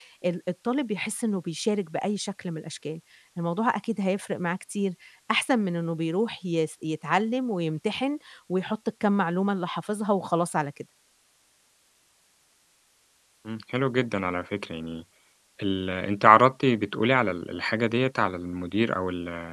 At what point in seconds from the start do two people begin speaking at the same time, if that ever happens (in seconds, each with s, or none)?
none